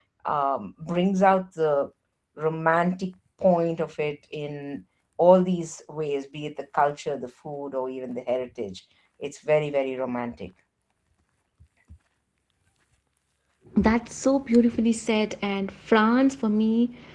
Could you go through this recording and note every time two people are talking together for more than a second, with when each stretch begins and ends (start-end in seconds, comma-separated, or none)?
none